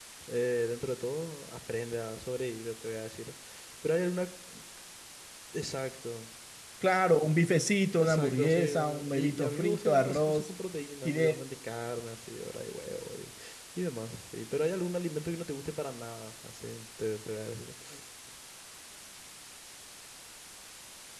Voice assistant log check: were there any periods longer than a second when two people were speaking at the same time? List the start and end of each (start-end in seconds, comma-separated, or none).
8.0-10.5